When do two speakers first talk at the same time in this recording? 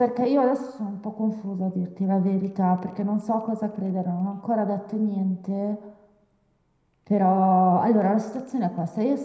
none

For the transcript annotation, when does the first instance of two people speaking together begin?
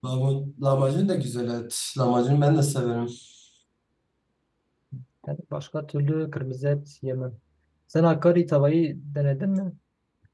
none

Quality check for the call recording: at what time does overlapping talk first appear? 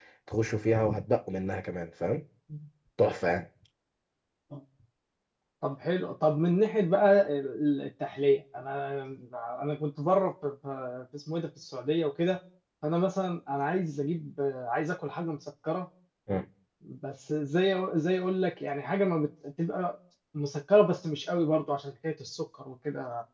none

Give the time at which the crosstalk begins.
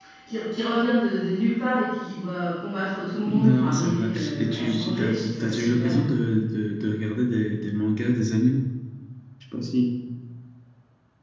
3.2 s

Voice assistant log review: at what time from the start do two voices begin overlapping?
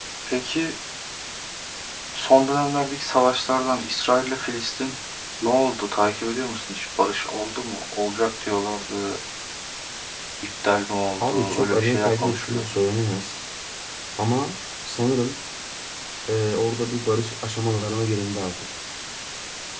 11.2 s

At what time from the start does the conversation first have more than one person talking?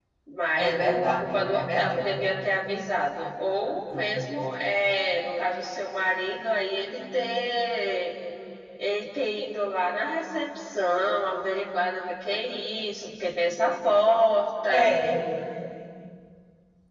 0.6 s

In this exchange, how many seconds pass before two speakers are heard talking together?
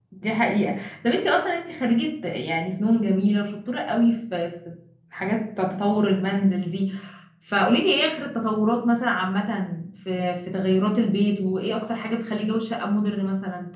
none

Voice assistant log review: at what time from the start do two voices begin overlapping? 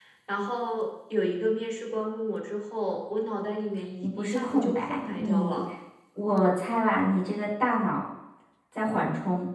4.0 s

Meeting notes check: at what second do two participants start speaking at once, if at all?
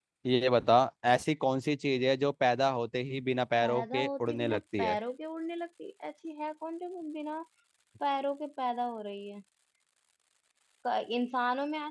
3.6 s

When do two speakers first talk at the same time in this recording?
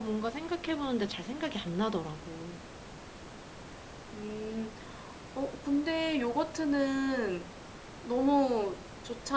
none

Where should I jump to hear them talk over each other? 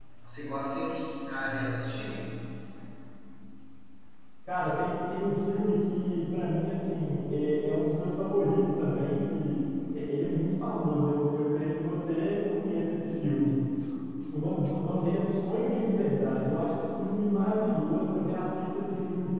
none

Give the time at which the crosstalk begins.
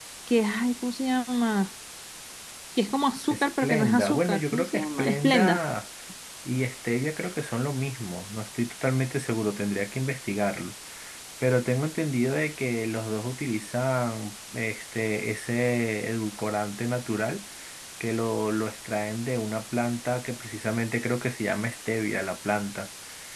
3.3 s

